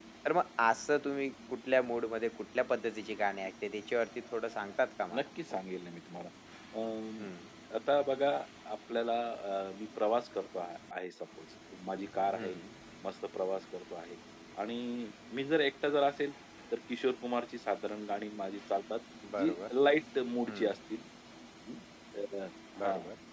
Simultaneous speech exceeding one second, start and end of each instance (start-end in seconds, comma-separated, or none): none